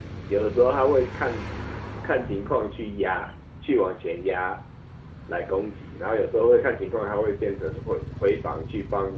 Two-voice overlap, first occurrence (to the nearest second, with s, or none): none